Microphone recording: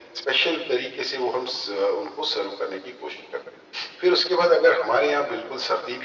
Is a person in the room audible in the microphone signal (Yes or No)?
No